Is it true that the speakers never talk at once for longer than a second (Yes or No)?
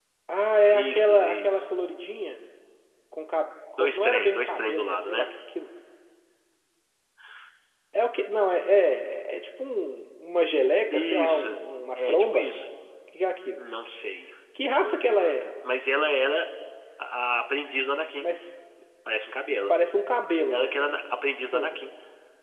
No